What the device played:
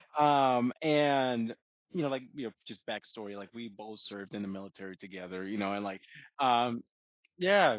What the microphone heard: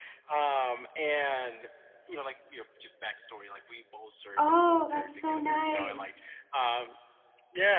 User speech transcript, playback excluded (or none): Oh, that's so nice.